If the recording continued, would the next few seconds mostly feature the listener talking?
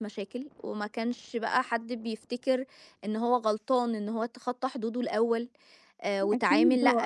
Yes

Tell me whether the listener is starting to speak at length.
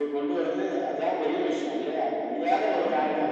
No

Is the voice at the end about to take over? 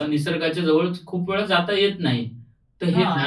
No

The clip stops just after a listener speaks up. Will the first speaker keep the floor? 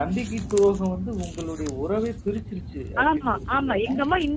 No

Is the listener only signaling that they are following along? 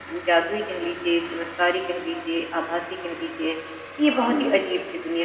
Yes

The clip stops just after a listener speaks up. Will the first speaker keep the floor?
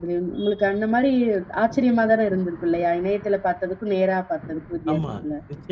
No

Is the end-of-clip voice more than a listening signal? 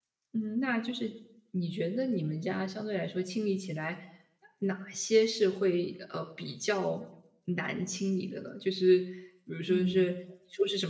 No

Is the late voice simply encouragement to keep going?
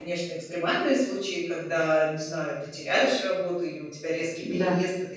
Yes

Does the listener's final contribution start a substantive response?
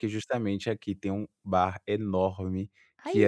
No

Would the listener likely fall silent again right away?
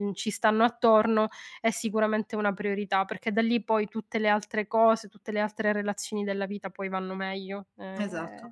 Yes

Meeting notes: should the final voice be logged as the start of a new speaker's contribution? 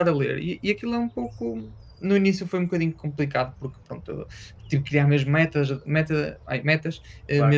No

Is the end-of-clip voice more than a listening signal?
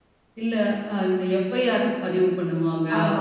No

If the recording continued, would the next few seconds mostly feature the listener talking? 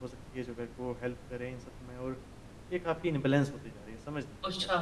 Yes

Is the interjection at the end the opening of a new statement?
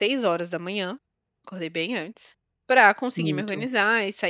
No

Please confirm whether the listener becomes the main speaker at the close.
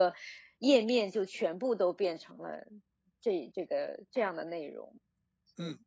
Yes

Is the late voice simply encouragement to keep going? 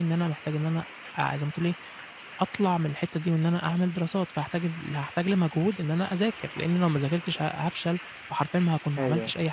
Yes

